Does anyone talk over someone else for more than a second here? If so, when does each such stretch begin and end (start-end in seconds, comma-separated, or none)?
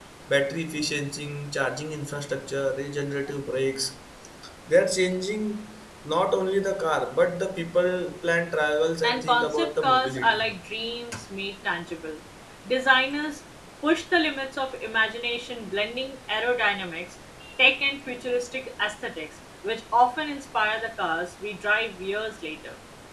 9.0-10.5